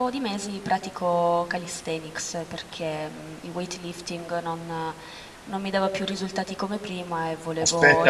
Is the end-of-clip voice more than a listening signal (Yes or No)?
Yes